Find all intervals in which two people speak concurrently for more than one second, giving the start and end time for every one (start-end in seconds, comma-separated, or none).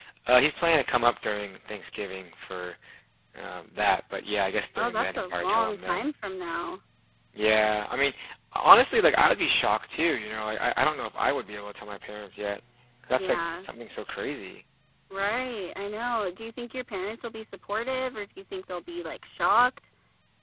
4.8-6.1